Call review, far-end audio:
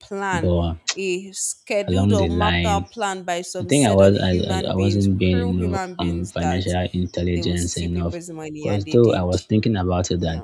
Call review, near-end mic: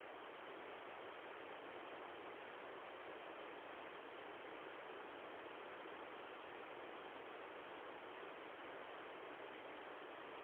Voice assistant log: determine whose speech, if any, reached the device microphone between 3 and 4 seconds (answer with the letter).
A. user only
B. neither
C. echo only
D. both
B